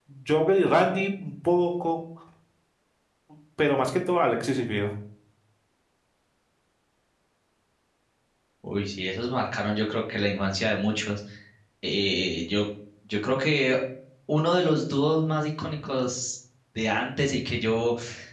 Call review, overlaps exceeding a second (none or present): none